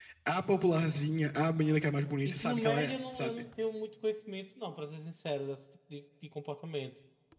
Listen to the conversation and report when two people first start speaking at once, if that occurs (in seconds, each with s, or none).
2.2 s